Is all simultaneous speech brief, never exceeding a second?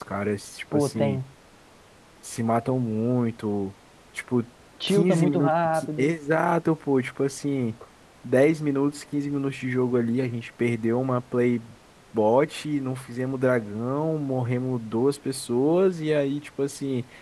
No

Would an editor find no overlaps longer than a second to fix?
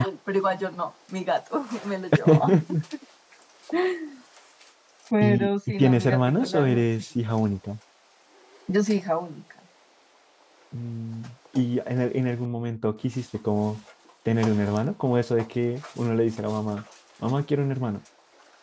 No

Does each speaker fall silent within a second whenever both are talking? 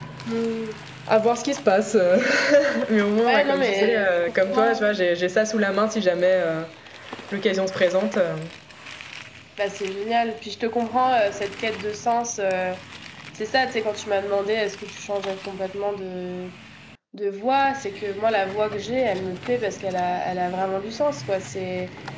No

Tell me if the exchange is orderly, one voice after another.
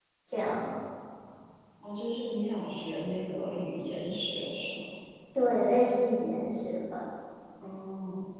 Yes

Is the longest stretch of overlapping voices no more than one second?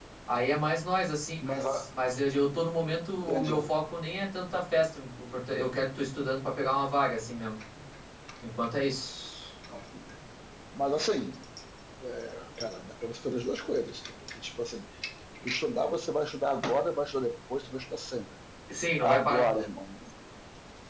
Yes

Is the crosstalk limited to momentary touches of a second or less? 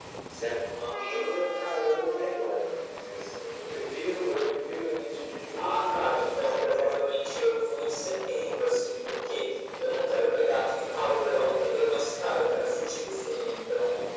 No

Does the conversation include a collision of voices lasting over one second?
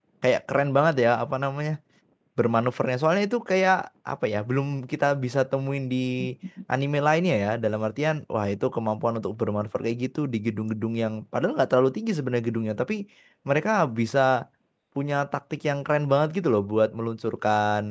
No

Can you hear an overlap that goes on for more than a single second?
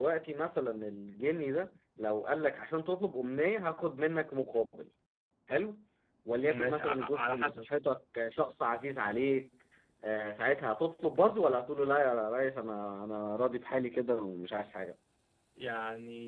Yes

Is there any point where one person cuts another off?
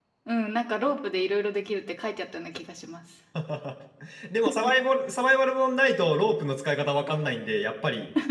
No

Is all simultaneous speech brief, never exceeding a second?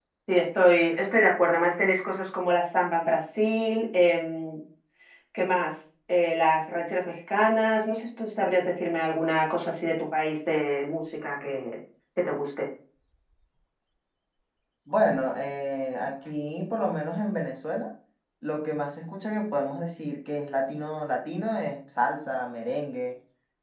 Yes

